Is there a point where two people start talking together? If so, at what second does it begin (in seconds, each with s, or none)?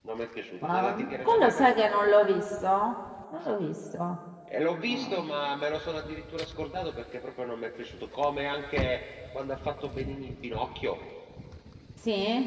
0.6 s